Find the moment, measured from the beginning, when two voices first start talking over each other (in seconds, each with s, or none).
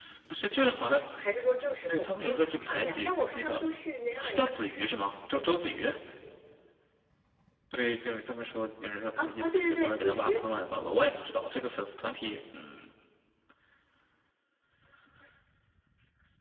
1.9 s